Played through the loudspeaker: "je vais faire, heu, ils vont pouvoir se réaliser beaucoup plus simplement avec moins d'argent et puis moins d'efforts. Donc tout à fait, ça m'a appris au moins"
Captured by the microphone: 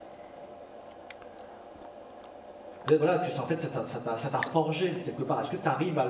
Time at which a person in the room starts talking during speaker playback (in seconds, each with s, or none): 2.8 s